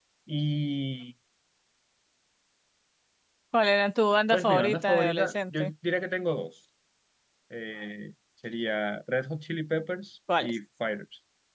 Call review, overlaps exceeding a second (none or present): present